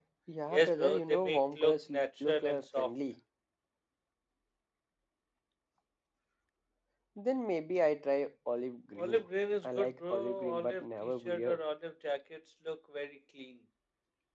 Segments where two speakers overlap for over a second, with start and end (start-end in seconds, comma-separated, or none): 0.5-2.9, 9.6-11.6